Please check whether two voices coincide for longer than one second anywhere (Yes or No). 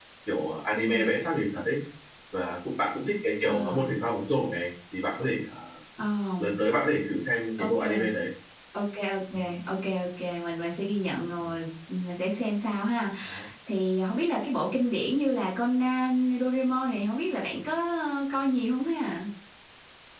No